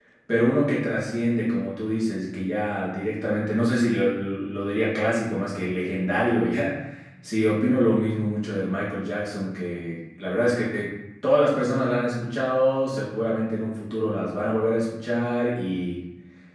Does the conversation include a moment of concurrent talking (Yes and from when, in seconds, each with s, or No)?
No